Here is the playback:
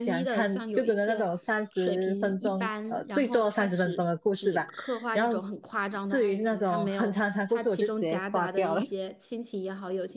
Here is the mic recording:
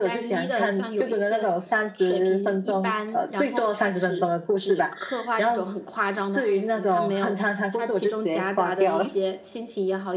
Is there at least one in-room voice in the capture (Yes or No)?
No